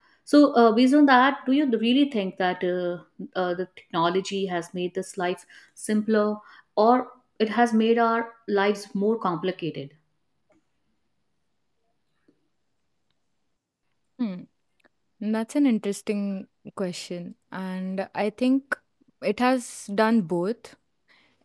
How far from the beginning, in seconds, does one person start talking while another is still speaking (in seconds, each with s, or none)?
none